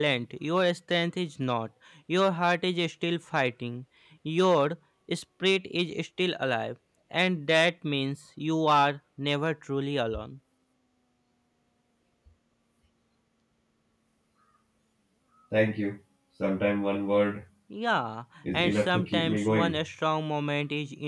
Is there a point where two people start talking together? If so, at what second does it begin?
18.5 s

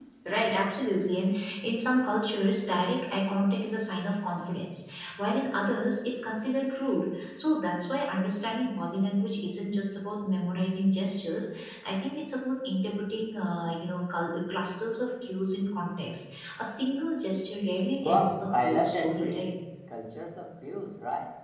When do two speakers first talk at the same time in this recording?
18.0 s

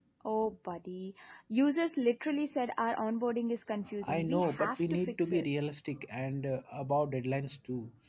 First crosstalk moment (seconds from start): 4.0 s

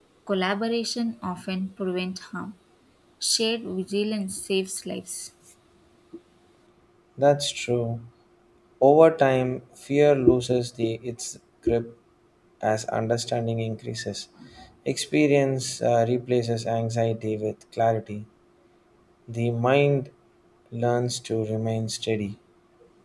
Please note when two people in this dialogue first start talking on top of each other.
none

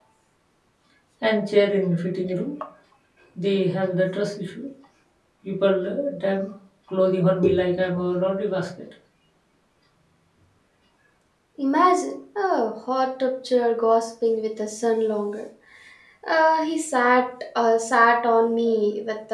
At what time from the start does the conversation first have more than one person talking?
none

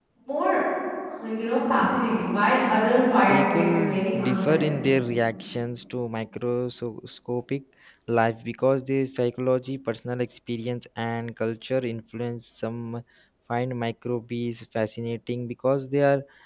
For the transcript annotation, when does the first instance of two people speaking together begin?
3.3 s

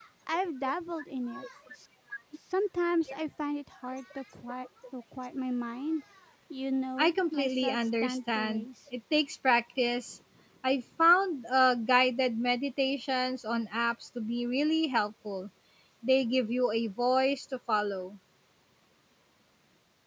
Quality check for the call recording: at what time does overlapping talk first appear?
7.0 s

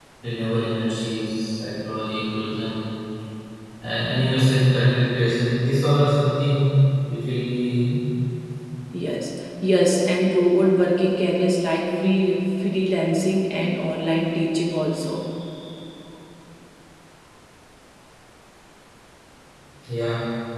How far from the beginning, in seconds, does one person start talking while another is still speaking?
none

